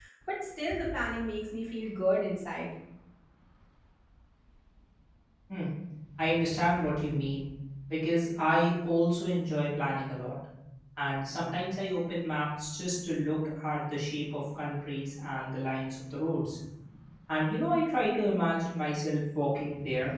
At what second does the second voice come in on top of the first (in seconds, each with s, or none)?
none